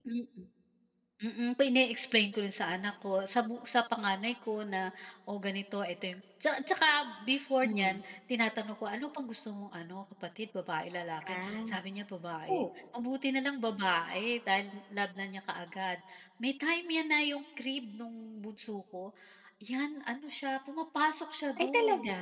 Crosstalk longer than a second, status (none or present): none